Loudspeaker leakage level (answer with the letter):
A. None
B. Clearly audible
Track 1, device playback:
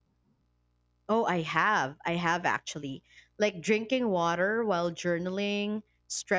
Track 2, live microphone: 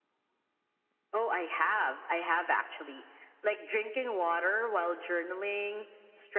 B